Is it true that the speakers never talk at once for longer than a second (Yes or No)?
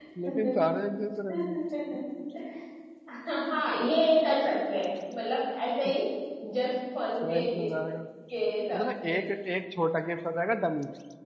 Yes